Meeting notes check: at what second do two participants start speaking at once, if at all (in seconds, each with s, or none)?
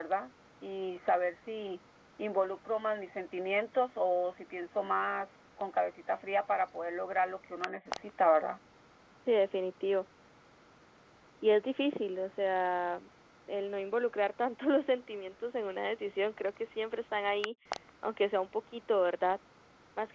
none